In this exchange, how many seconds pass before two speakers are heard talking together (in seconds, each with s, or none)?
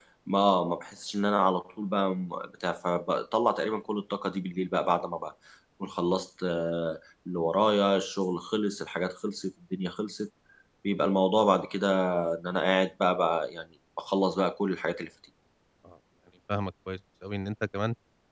none